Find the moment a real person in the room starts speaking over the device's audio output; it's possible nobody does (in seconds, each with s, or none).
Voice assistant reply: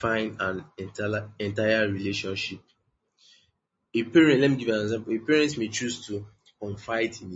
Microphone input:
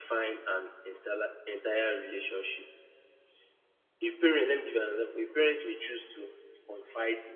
none